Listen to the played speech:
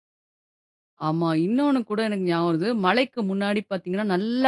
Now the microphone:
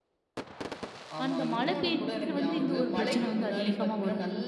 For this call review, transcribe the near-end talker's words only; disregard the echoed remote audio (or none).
அந்த மழை பெய்ஞ்சாலே வந்து இந்த ஒரு பிரச்சனை வந்து அதிகமா வரும்.